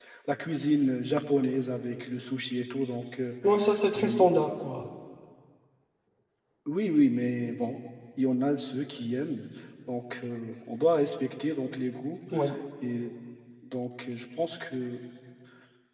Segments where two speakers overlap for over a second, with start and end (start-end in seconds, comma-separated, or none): none